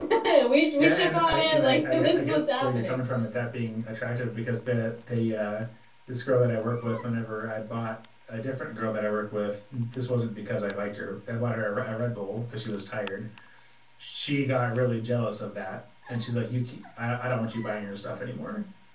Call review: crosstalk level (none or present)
present